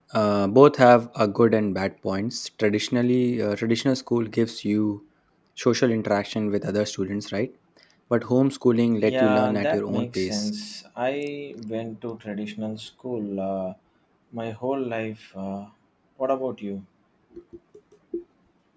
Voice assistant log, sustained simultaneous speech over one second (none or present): present